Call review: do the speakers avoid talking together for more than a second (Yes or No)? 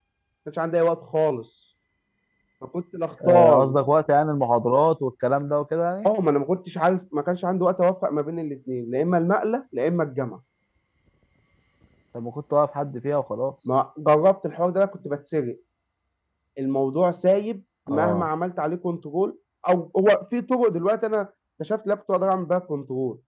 Yes